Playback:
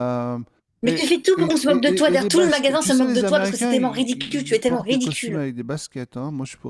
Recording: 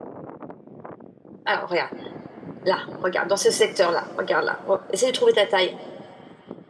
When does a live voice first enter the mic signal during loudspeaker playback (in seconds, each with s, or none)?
1.4 s